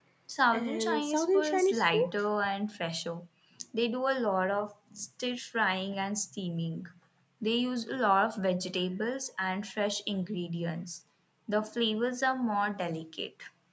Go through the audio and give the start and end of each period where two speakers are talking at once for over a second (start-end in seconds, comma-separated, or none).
0.5-2.1